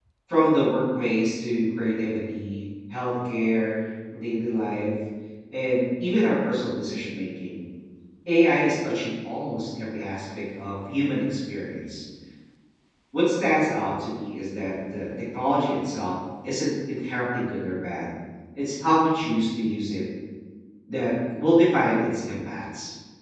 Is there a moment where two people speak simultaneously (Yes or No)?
No